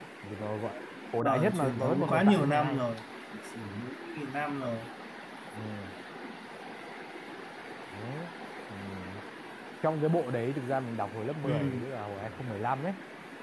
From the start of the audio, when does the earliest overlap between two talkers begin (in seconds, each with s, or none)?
1.2 s